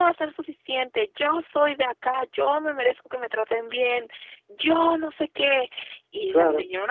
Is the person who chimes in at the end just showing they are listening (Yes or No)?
Yes